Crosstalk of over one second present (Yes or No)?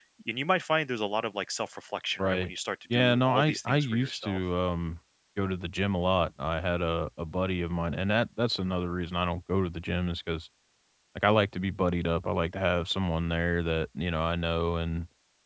Yes